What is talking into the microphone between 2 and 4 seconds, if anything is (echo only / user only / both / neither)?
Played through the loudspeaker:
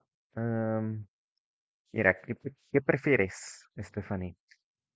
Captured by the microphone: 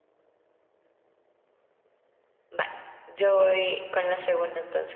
user only